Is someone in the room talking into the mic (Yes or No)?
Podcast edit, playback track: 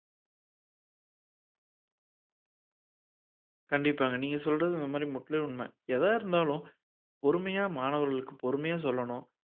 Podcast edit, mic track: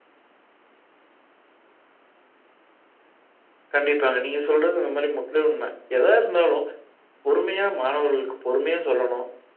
No